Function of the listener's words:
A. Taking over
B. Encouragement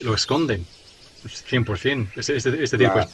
B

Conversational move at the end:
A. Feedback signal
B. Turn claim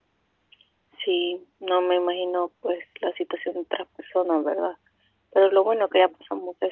A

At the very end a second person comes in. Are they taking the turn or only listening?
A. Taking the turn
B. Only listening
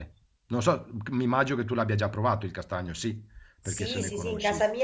A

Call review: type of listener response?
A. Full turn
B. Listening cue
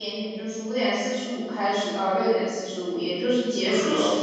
B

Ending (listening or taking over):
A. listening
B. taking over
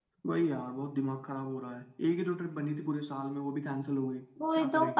B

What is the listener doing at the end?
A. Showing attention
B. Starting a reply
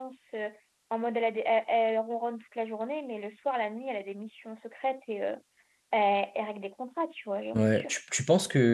B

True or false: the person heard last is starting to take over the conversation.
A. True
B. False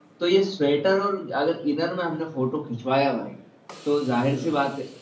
B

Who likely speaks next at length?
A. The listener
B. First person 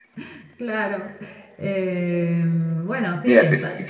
A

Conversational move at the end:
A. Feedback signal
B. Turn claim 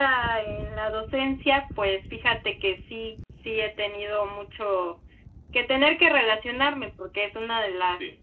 A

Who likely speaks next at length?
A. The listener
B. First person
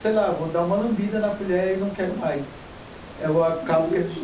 B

